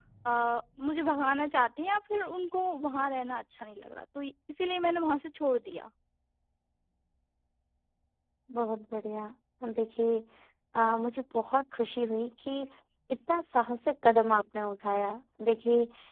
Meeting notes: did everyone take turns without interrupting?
Yes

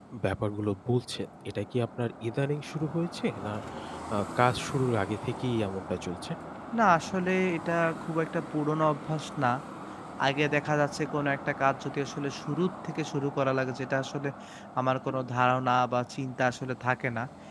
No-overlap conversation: Yes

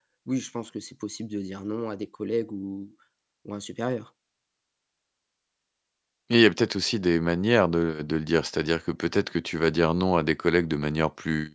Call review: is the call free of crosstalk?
Yes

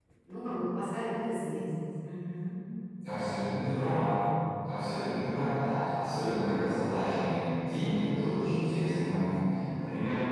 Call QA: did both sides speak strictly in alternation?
Yes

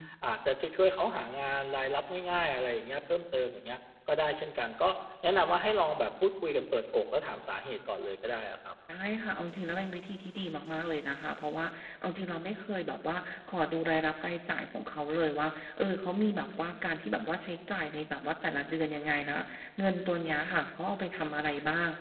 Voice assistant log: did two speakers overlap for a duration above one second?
No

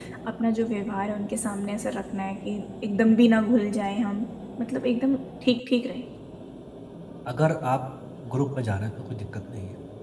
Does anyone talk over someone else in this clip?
No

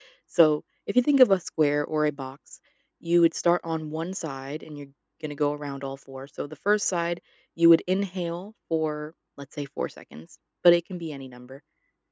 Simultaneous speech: No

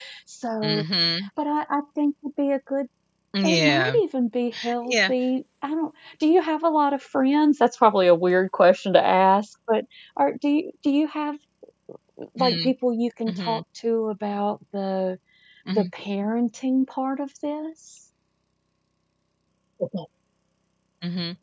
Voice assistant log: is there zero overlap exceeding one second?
Yes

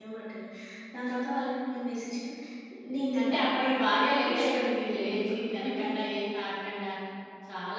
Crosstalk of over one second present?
Yes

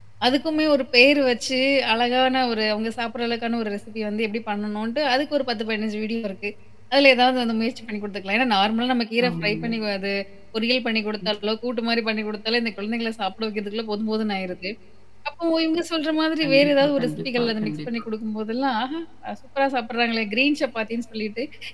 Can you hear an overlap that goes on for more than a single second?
Yes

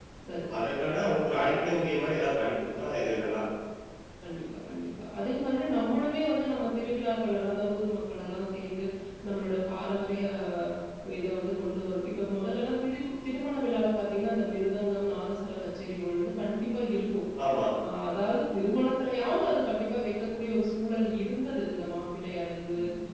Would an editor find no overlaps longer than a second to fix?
Yes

